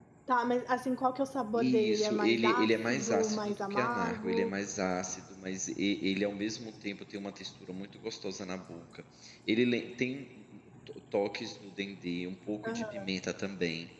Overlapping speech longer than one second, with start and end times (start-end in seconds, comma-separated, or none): 1.6-4.5